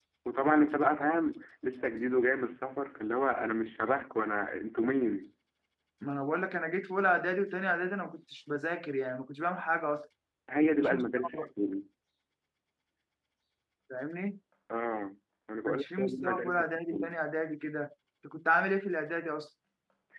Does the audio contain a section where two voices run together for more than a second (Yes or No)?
Yes